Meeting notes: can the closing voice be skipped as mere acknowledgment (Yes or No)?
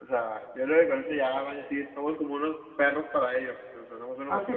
No